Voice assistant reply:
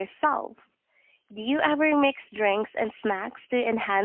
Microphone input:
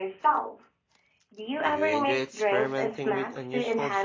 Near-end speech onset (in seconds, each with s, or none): 1.6 s